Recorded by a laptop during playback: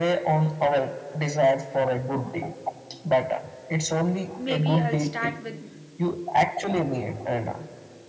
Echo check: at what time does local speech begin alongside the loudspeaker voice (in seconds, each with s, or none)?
4.3 s